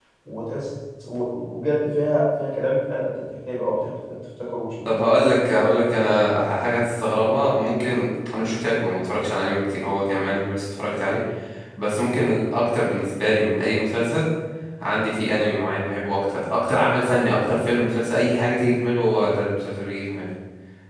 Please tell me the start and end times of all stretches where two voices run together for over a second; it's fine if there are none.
none

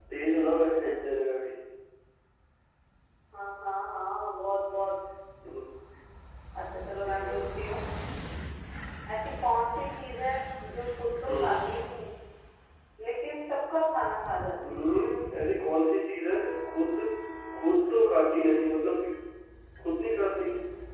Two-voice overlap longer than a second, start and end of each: none

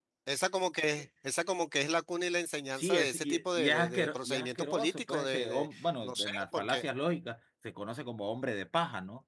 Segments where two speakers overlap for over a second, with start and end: 2.8-6.9

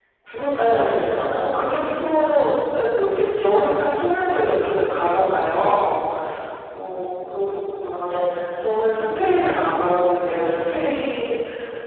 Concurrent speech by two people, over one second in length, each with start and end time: 0.6-1.9

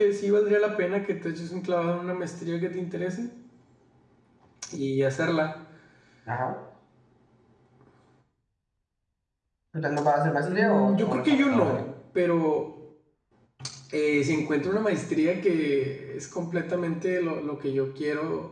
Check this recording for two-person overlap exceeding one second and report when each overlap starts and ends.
10.4-11.8

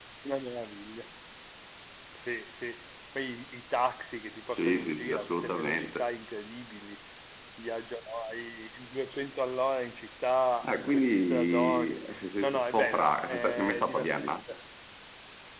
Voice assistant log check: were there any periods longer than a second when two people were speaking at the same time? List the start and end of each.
4.5-6.1, 10.6-12.0, 12.4-14.4

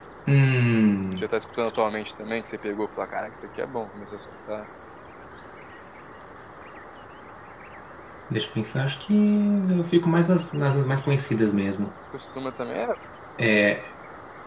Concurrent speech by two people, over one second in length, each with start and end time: none

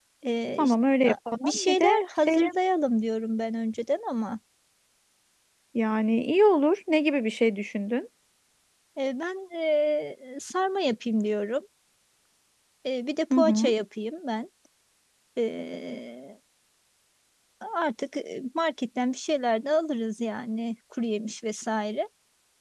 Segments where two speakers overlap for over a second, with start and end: 0.6-2.5

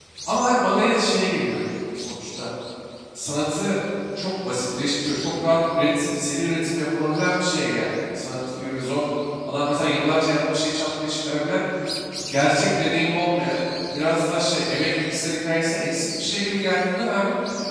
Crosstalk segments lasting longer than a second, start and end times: none

